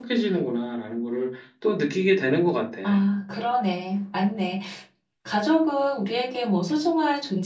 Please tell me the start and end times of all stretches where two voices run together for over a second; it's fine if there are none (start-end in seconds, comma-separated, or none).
none